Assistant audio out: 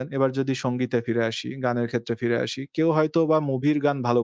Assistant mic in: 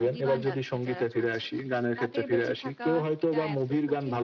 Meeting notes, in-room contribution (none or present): present